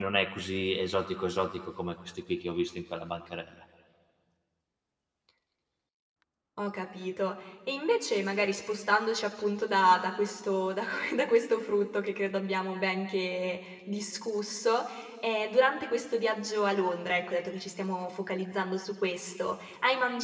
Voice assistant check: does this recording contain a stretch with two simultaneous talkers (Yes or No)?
No